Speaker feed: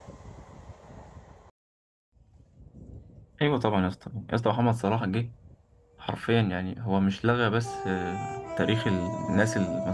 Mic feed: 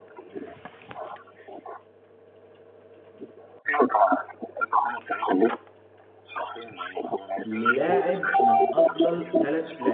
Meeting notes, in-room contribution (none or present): present